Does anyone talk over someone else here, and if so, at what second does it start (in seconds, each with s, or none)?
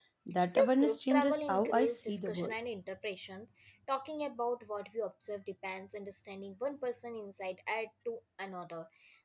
0.6 s